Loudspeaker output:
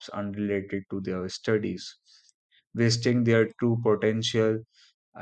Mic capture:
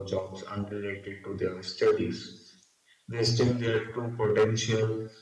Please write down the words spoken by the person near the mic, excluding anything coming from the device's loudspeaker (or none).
none